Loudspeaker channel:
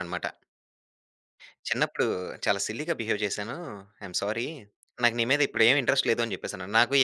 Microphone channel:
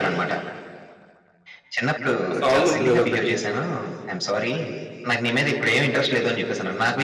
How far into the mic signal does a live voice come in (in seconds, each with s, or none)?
2.3 s